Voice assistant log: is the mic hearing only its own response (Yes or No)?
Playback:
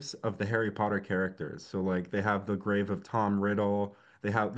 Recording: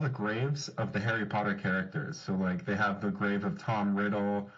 Yes